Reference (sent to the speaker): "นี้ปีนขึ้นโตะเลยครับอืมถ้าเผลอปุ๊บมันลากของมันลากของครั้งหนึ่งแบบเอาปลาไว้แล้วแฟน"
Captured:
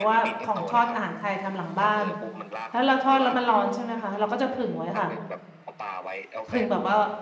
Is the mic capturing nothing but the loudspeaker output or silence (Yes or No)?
No